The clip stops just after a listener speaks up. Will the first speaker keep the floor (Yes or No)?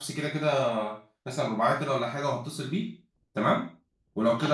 Yes